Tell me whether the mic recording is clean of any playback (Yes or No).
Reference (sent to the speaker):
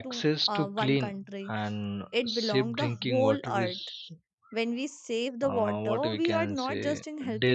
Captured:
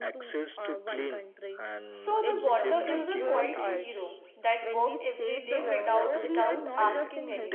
No